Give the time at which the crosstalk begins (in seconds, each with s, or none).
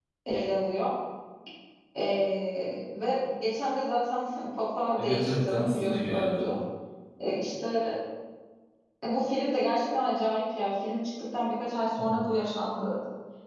5.0 s